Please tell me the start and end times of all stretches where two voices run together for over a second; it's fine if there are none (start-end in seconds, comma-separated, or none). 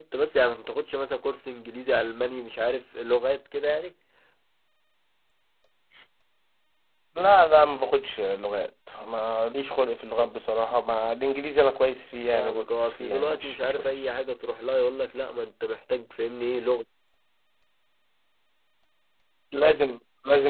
12.3-14.1